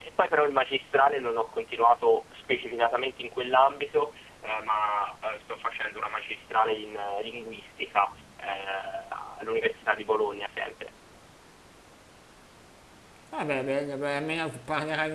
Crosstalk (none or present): none